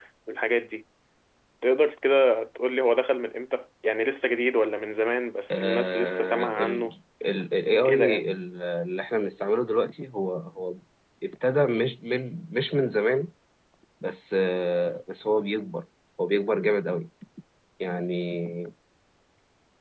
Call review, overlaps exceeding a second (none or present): present